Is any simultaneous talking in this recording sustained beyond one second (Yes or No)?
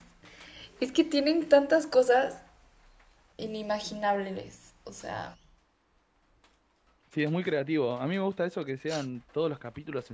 No